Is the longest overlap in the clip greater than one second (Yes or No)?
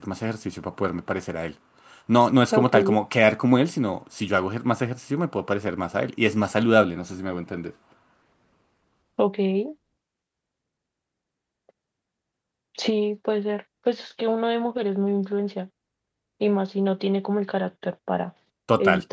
No